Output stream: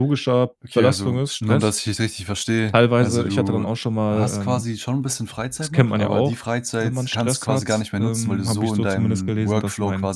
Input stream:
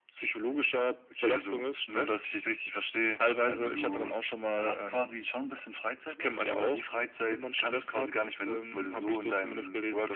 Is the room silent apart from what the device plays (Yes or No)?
Yes